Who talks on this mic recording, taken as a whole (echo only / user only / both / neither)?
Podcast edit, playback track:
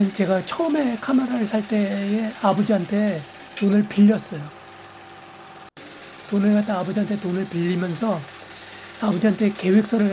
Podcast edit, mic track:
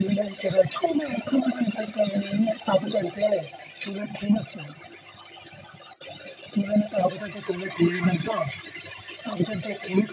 echo only